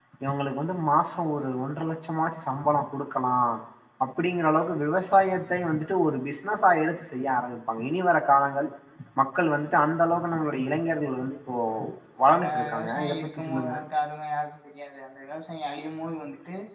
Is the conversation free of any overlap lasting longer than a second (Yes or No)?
No